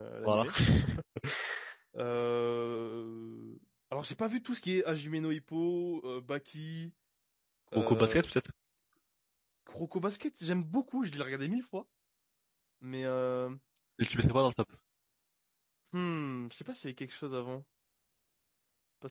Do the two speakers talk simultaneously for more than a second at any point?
No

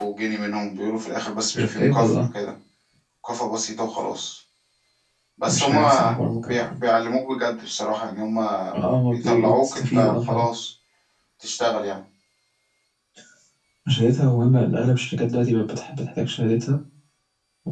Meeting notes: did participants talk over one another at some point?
Yes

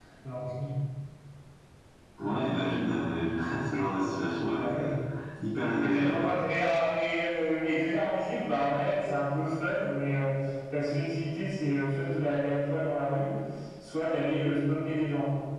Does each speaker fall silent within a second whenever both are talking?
Yes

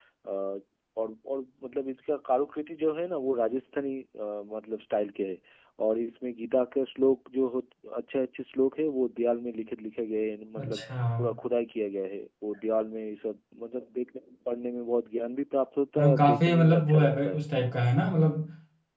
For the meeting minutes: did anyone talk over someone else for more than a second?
Yes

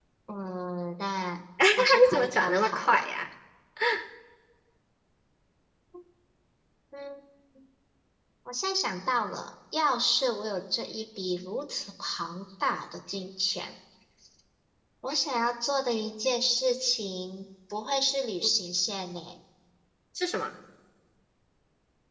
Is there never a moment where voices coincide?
No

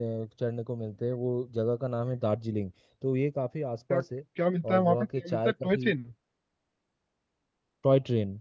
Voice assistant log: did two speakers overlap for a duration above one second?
Yes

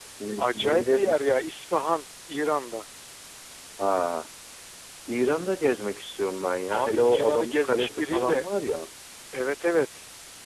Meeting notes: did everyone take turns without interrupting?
No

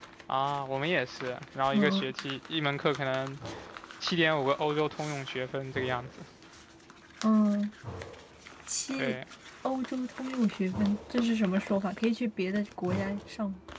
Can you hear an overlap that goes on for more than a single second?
No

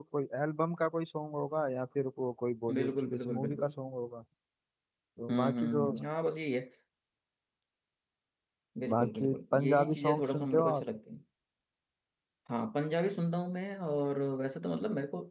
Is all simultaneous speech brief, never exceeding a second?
No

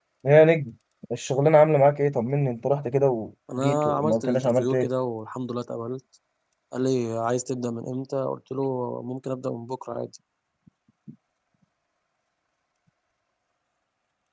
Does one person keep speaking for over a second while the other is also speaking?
Yes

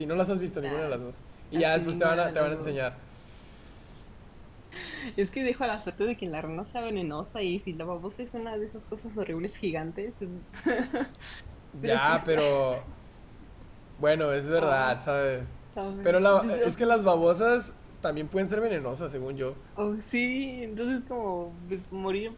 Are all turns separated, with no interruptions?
No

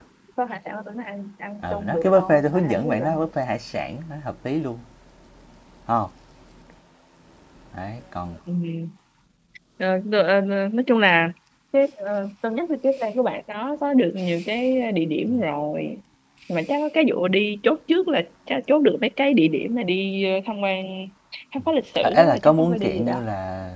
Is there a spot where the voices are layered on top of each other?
Yes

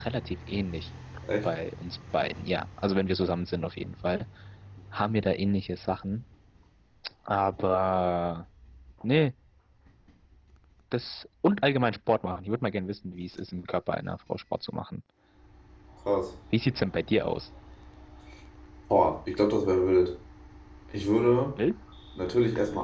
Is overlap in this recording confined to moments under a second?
Yes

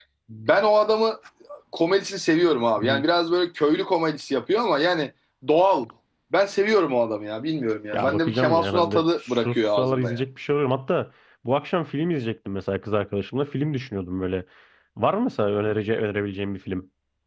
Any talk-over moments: Yes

